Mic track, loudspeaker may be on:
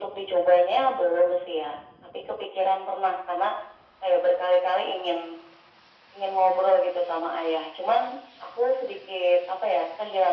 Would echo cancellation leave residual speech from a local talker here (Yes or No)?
No